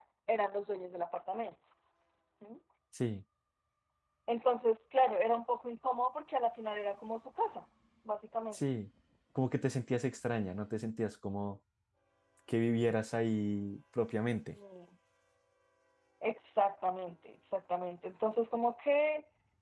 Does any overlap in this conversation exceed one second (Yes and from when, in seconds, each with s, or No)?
No